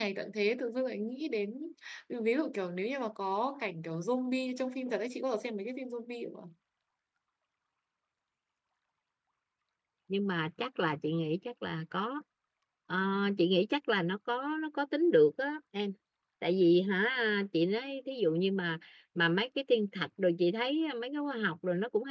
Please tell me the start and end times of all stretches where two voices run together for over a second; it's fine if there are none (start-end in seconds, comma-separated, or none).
none